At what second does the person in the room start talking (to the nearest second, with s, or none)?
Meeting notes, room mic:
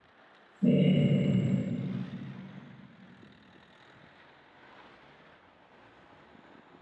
1 s